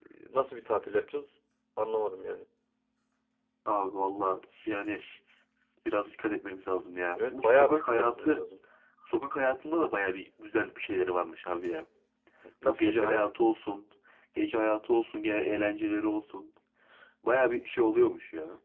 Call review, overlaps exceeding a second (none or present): present